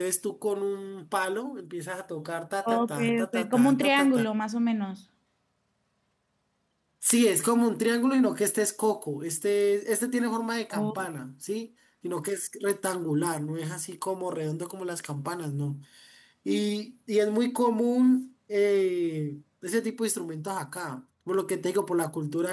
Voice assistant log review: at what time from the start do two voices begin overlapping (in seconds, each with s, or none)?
2.6 s